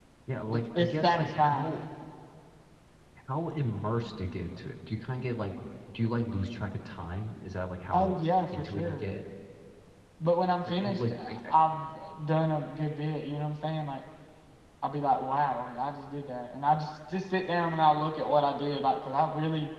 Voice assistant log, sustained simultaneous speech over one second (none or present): present